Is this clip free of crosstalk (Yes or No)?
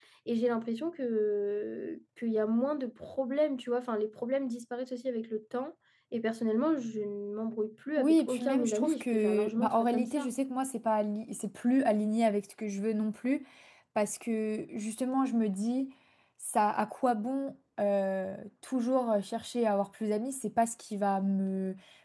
No